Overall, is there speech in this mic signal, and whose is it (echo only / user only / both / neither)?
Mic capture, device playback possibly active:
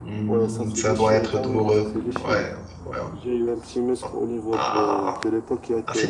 both